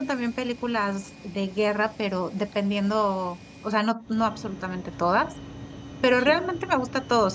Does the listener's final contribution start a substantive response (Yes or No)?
No